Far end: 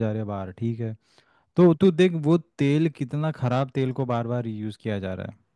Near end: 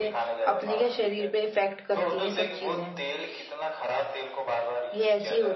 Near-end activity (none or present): present